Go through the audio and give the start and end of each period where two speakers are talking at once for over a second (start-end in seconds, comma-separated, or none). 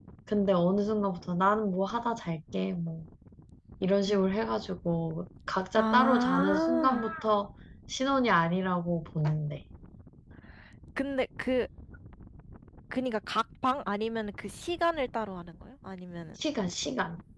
5.8-7.0